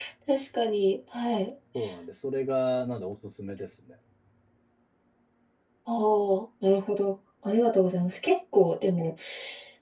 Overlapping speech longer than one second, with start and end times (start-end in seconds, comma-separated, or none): none